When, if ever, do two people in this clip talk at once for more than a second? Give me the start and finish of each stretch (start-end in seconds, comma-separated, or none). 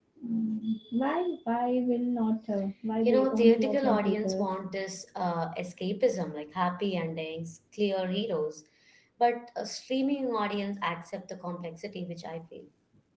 3.0-4.5